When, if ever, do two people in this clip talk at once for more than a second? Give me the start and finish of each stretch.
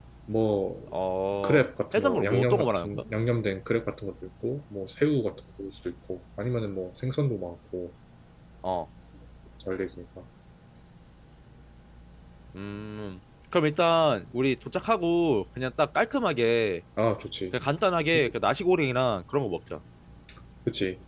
1.4-3.0

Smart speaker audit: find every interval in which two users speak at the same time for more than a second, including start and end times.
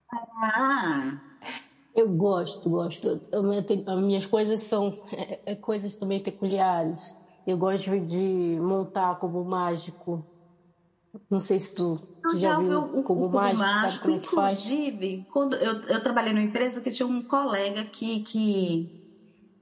12.3-14.7

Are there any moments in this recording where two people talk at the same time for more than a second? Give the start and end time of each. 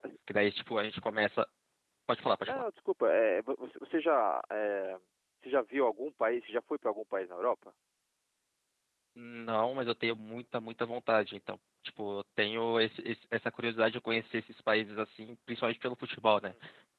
none

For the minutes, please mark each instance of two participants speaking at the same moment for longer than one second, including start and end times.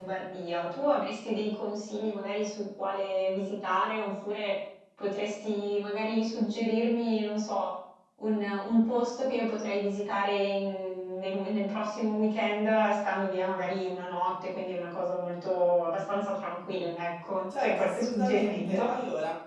17.6-18.9

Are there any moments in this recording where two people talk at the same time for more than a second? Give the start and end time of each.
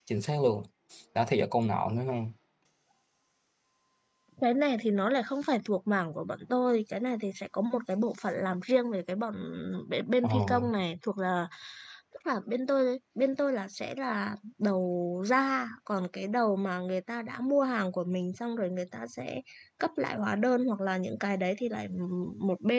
none

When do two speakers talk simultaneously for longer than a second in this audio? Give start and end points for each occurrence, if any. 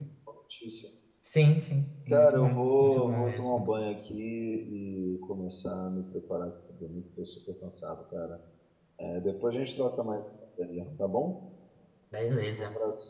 2.1-3.6

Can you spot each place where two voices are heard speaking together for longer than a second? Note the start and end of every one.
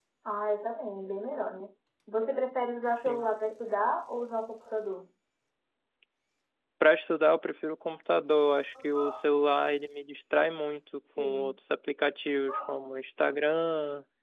none

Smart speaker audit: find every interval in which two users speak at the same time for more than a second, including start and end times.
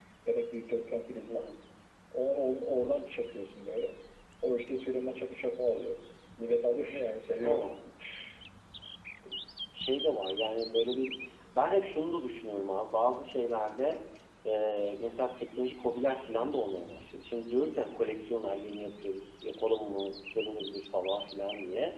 none

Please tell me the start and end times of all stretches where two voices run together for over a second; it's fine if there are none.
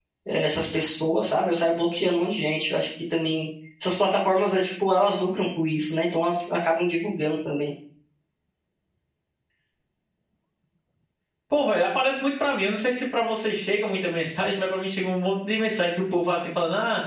none

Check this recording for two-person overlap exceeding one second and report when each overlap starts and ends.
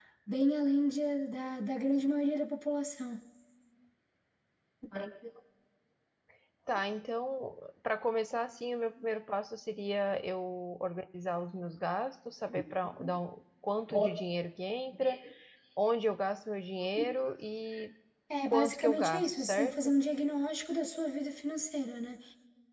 18.4-19.7

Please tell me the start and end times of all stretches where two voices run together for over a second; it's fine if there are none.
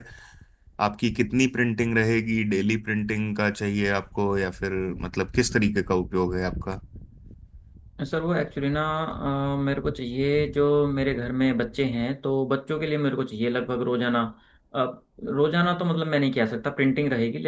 none

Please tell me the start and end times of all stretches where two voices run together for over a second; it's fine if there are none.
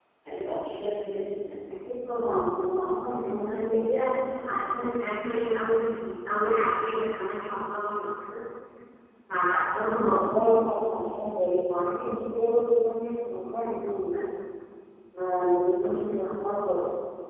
none

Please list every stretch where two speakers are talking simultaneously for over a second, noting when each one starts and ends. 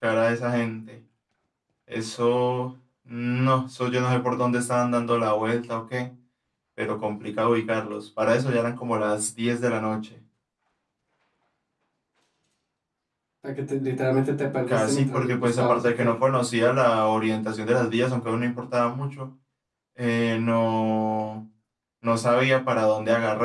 14.7-16.0

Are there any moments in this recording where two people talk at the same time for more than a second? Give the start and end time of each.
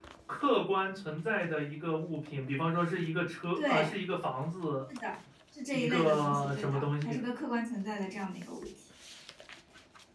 5.7-7.2

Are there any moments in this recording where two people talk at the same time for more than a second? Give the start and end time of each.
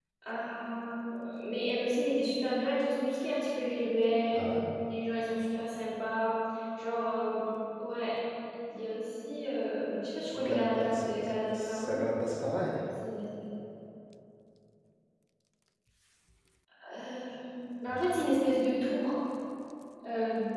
10.4-12.0

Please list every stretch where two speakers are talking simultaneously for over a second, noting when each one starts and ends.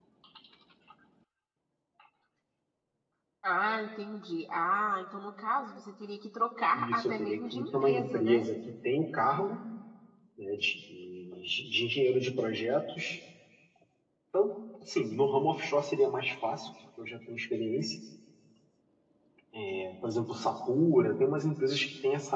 6.7-8.5

